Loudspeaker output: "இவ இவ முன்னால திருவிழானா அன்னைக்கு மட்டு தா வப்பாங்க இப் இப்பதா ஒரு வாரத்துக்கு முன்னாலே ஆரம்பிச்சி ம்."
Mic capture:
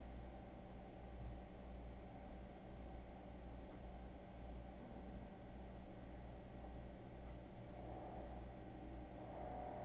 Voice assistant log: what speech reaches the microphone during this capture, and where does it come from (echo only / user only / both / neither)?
neither